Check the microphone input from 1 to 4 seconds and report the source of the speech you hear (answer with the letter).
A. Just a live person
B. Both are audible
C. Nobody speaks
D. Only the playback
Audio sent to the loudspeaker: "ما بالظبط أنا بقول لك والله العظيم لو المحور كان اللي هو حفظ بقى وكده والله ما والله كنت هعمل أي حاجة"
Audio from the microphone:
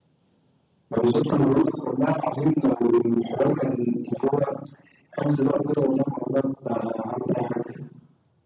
D